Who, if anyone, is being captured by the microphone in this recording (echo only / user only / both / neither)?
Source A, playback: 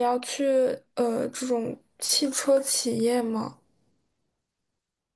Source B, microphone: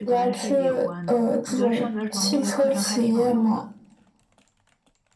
both